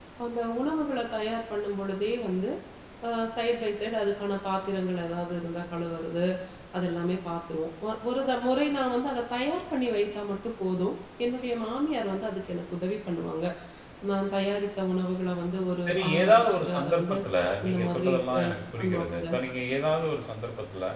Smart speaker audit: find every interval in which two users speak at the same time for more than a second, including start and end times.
15.9-17.2, 17.6-19.3

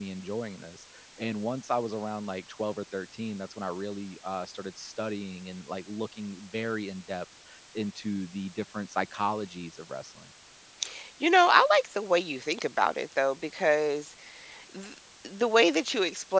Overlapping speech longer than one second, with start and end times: none

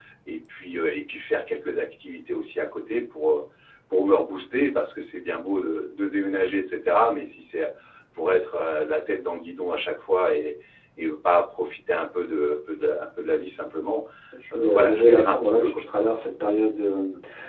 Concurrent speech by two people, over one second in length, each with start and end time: 14.5-15.8

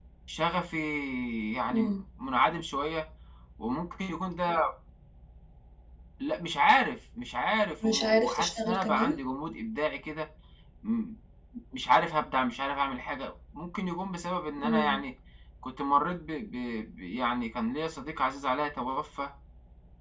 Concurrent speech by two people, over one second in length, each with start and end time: 7.9-9.1

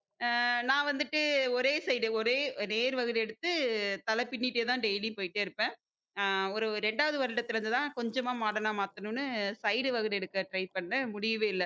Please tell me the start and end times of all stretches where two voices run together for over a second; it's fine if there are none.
none

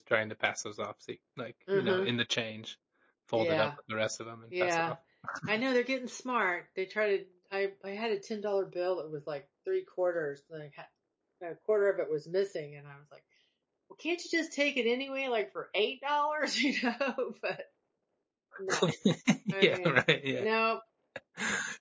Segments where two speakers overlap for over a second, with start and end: none

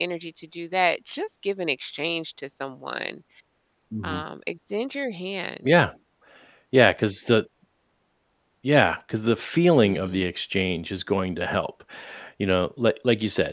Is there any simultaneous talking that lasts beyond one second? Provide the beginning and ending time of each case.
none

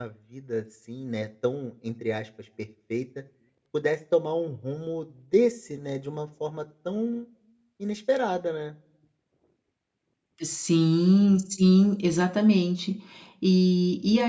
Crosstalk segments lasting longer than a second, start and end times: none

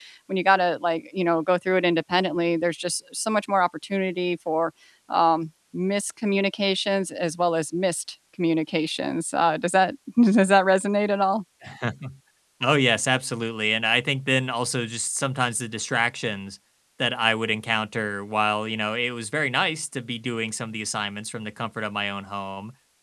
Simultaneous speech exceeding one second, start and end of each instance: none

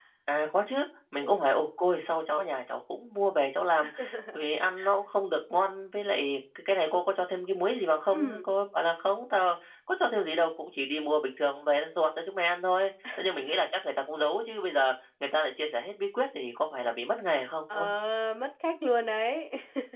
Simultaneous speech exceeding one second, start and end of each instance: none

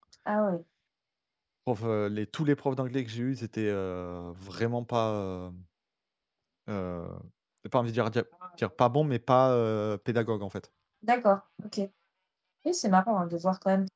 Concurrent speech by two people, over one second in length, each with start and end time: none

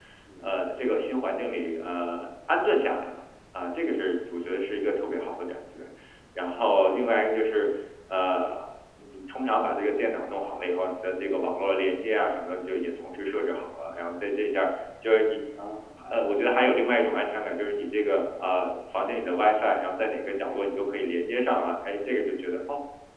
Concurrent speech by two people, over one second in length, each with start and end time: none

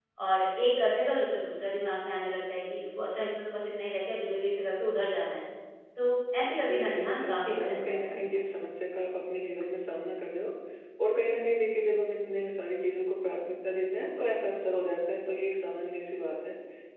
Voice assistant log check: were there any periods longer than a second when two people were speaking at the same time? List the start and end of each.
6.5-8.4

